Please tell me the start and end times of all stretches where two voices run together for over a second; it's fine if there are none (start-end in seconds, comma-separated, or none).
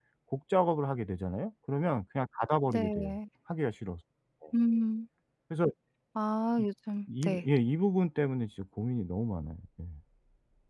none